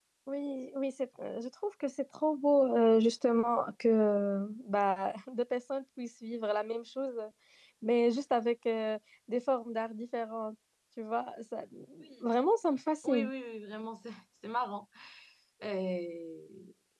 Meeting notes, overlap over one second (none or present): none